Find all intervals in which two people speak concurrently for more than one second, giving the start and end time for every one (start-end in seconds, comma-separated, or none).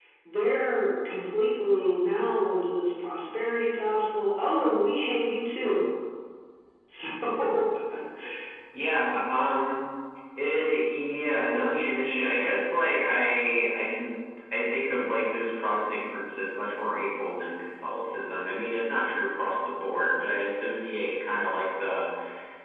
none